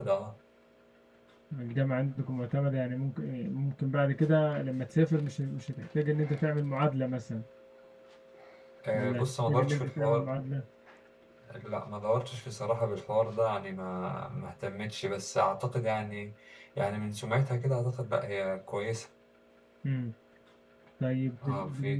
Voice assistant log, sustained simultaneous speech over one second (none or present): present